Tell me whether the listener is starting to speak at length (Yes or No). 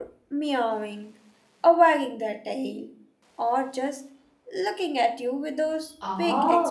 Yes